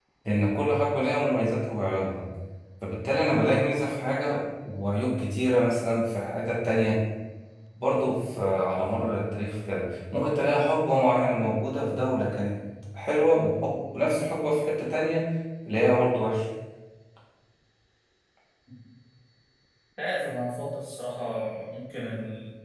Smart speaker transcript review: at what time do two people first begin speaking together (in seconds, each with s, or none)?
none